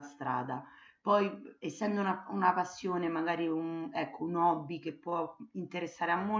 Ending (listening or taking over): listening